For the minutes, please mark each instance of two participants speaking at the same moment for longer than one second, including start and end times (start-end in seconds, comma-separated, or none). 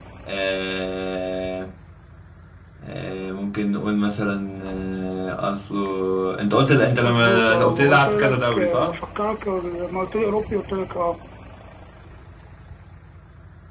7.0-8.9